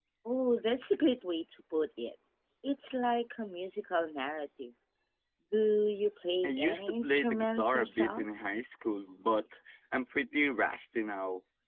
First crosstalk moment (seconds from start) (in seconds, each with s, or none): 6.4 s